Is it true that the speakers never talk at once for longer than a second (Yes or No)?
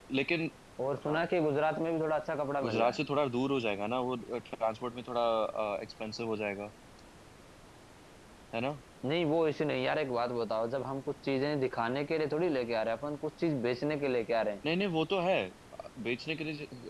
Yes